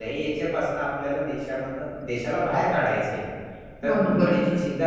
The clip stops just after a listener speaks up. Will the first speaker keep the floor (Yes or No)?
Yes